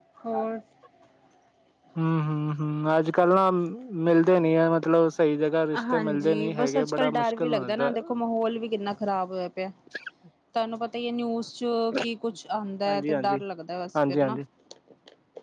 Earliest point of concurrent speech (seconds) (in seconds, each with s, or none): 5.9 s